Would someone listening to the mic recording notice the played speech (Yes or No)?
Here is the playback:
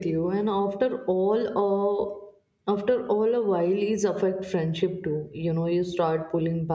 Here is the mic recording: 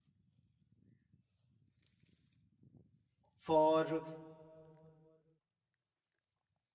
No